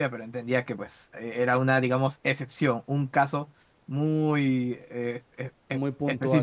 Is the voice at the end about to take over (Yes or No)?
No